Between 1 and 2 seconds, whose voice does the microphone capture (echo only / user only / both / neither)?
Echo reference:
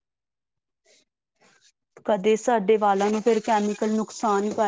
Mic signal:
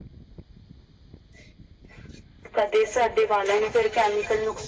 neither